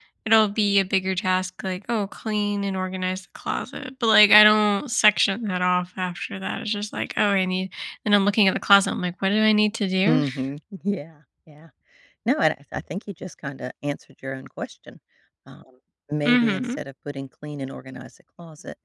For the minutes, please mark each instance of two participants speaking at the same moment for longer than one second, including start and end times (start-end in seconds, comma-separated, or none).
none